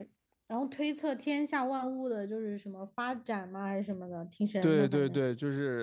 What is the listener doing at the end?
taking over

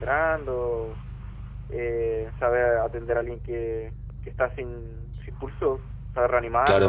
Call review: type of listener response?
taking over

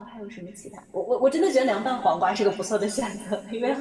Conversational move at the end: taking over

